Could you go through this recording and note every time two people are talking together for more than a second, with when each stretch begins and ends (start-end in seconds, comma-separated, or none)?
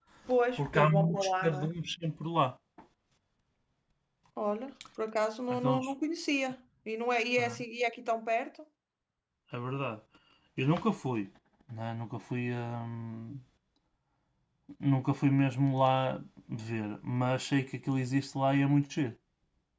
0.5-1.8